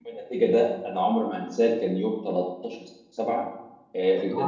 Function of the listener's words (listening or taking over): listening